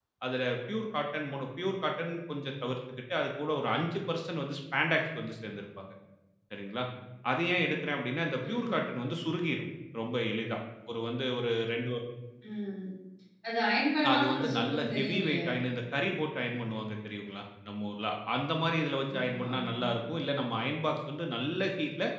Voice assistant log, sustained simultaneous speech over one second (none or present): present